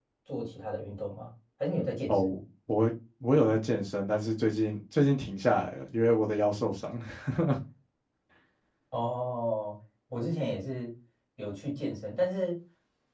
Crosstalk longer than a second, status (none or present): none